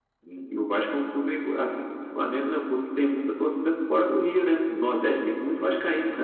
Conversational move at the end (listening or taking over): taking over